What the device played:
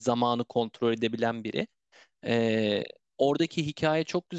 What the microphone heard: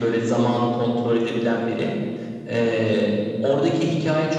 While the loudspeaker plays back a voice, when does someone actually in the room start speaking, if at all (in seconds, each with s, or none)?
none